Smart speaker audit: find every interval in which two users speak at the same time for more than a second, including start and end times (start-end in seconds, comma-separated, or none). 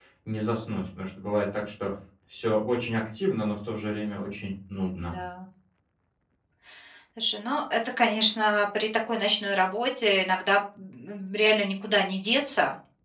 none